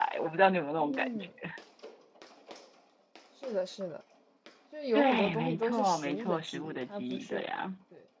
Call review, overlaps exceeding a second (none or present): present